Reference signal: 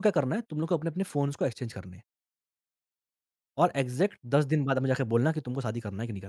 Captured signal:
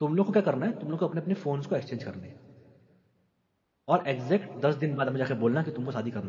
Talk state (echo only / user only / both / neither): echo only